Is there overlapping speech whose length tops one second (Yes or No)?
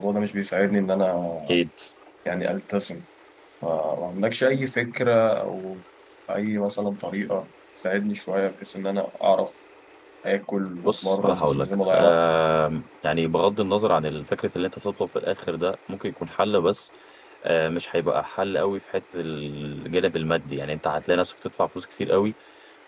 Yes